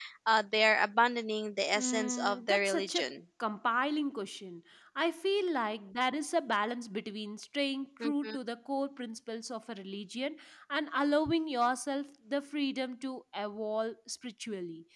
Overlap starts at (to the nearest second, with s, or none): 2 s